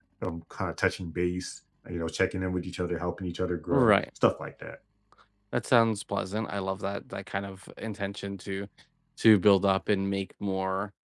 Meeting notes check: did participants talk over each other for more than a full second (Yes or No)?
No